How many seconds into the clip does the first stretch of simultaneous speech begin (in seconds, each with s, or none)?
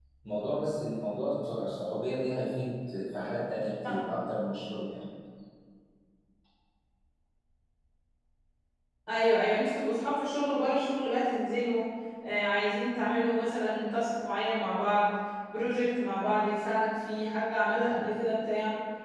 none